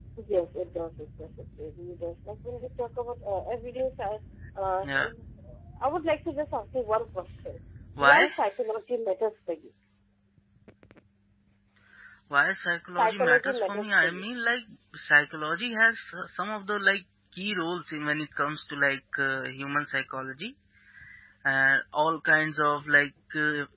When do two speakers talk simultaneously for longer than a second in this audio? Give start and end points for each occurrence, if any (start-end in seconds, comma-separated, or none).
13.0-14.2